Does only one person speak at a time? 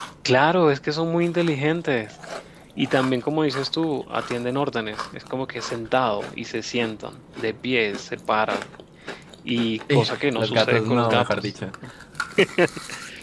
No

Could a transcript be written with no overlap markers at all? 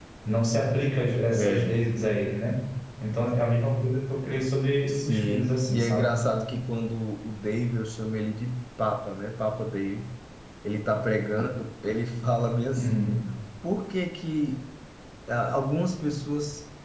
No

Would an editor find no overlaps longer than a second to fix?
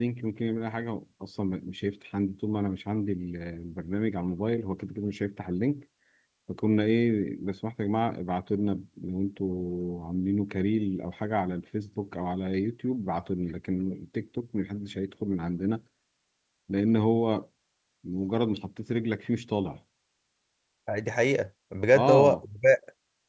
Yes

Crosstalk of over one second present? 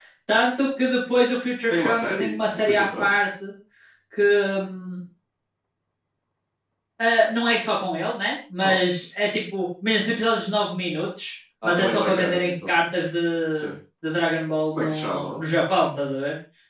Yes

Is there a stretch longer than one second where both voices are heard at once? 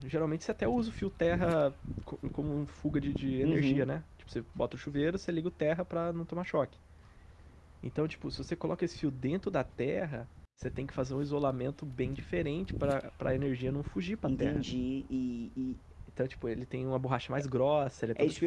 No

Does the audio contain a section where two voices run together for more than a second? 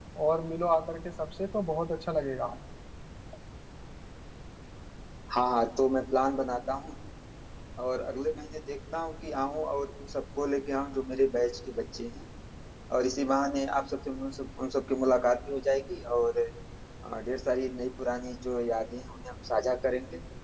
No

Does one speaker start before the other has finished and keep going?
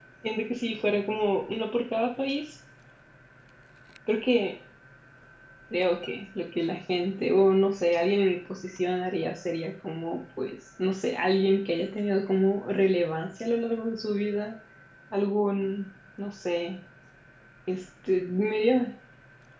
No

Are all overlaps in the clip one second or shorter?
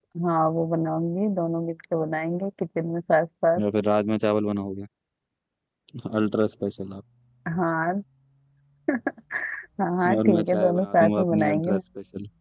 No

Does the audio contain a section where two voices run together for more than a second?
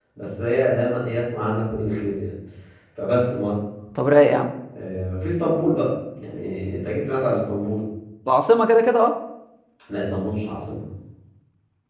No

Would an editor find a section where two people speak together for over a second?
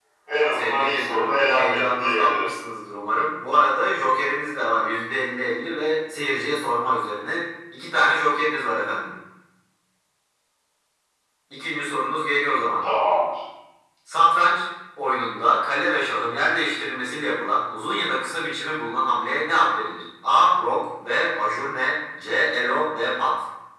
Yes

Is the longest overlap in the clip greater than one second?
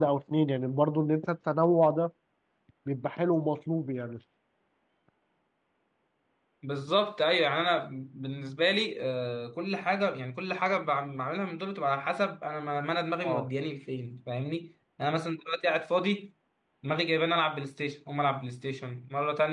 No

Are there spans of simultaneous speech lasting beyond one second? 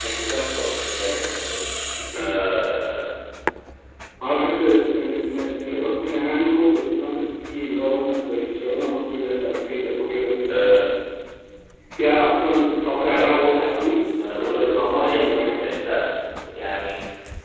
Yes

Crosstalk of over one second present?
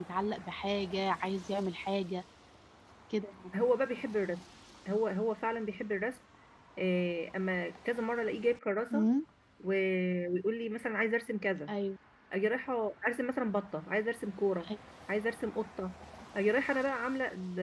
No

